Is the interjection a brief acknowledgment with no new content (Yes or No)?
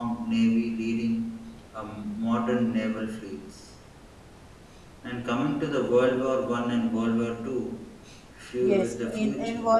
No